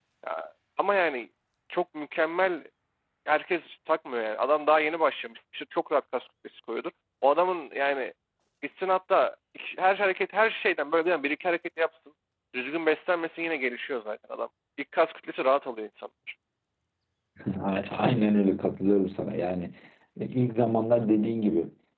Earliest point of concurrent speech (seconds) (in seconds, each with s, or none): none